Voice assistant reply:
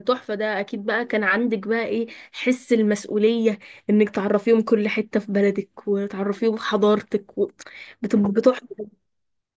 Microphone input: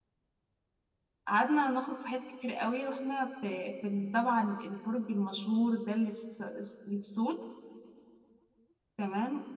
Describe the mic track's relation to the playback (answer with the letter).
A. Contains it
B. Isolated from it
B